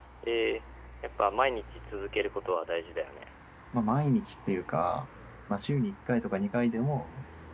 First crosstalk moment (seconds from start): none

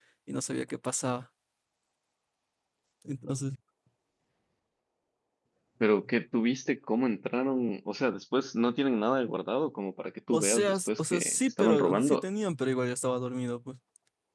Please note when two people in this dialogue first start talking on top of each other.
10.3 s

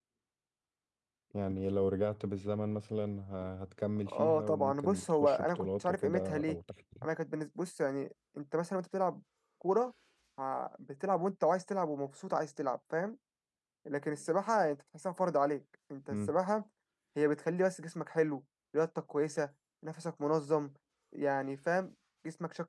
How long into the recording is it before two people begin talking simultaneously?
4.1 s

